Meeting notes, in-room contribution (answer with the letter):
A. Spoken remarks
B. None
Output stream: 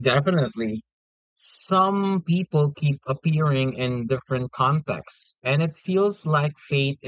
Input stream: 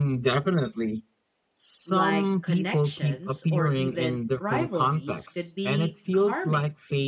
A